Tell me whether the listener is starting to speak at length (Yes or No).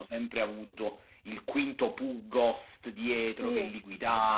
No